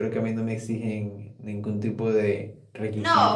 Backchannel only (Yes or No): No